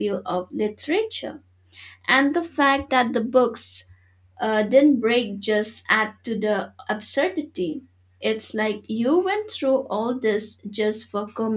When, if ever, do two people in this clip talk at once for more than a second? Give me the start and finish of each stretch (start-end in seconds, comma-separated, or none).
none